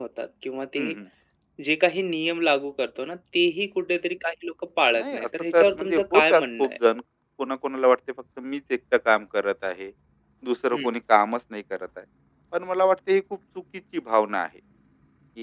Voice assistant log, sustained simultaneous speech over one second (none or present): present